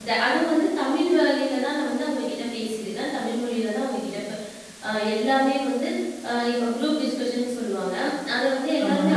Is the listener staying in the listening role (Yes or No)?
Yes